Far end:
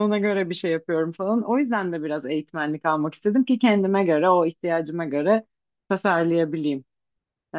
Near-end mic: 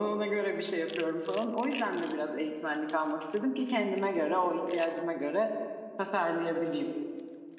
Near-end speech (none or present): none